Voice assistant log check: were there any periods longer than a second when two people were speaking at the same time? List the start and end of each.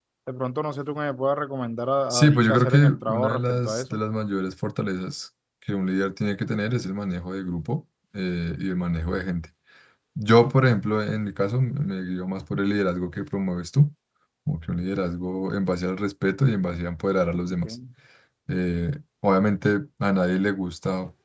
2.1-4.0

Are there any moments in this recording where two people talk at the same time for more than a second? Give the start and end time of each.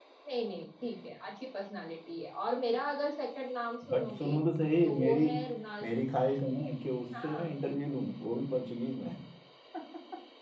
none

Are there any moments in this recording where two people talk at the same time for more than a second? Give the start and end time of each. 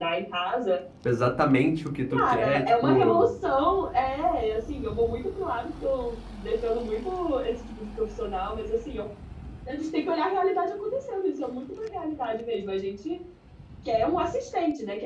2.1-3.3

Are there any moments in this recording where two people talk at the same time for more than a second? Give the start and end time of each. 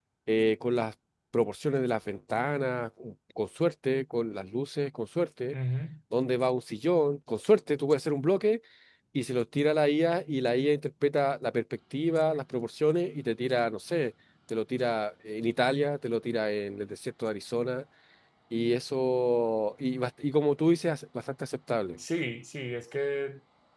none

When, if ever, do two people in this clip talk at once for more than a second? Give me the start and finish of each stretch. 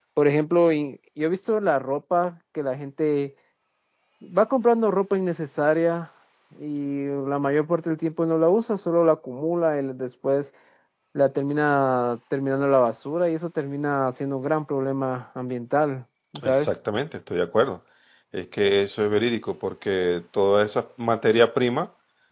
none

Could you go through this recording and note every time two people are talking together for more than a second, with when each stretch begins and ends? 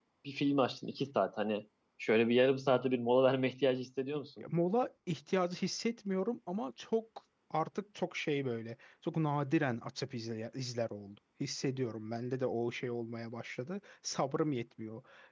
none

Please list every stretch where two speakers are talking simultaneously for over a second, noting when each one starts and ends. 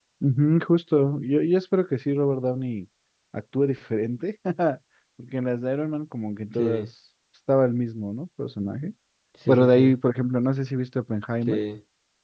none

